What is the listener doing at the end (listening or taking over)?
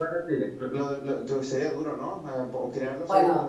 taking over